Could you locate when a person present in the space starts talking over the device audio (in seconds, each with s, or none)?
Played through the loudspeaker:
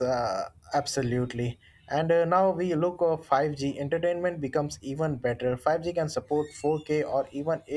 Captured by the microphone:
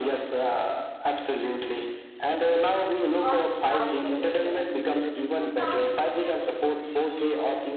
3.1 s